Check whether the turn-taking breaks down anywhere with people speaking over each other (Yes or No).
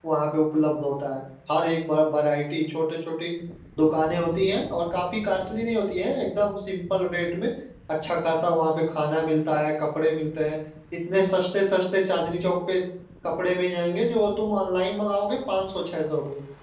No